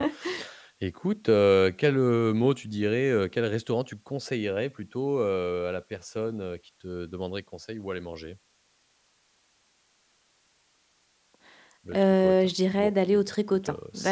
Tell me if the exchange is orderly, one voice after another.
No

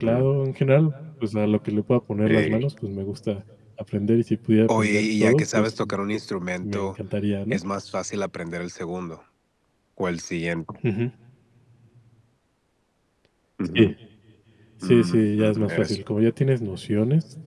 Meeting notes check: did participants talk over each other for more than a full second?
Yes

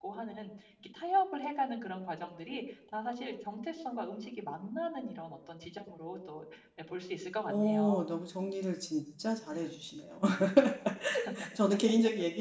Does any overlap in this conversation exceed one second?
No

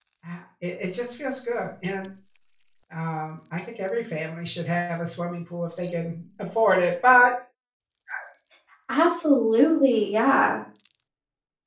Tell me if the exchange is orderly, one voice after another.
Yes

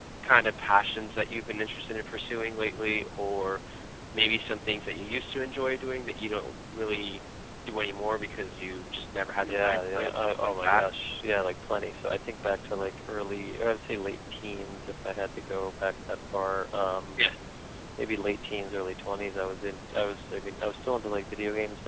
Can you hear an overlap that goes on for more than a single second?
Yes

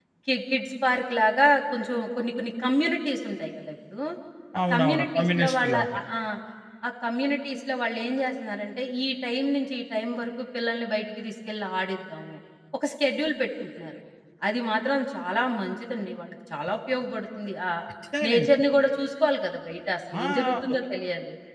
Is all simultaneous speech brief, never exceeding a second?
No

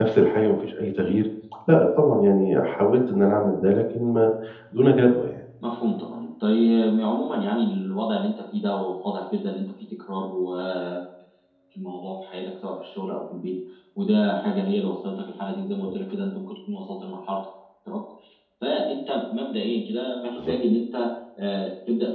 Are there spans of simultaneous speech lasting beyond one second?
No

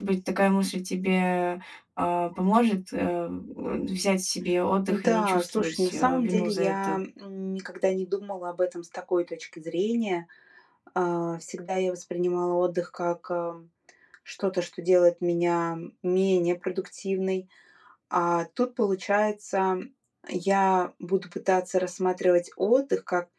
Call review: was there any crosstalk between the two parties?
Yes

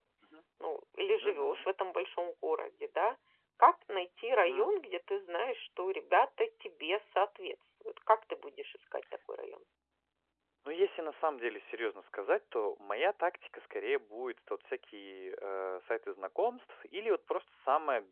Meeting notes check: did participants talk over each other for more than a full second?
No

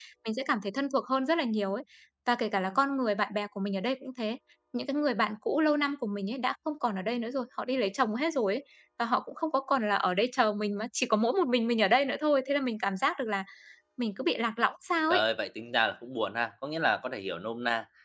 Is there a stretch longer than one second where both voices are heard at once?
No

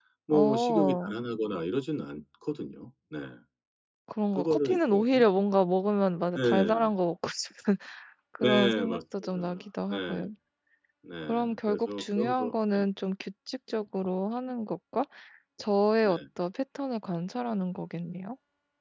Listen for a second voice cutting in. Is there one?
Yes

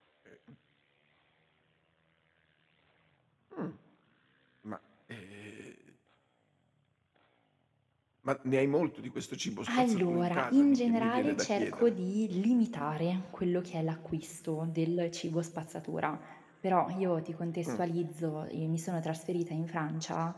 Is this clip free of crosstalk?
No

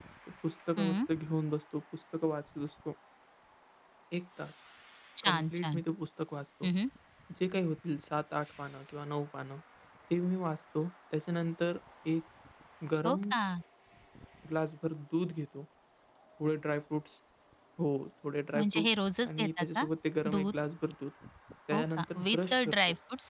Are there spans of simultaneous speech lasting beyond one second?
Yes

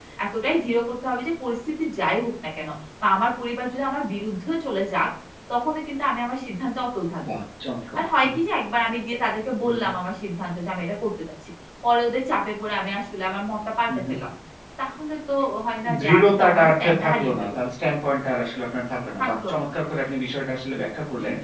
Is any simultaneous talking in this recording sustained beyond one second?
Yes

